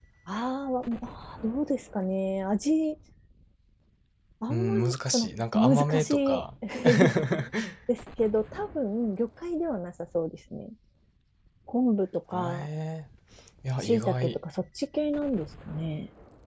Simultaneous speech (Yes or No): Yes